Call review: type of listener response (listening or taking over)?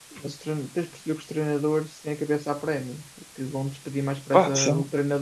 listening